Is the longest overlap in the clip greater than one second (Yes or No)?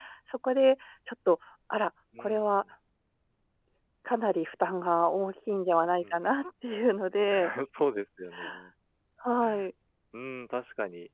No